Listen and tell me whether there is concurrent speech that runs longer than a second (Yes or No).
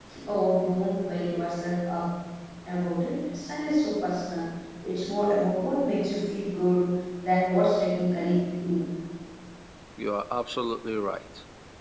No